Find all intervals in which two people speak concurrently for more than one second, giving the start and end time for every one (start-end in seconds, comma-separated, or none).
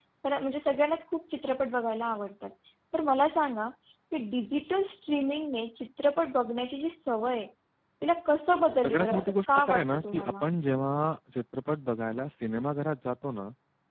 8.8-10.5